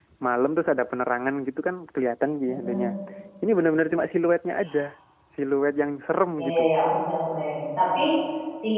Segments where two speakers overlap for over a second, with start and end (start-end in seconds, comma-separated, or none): none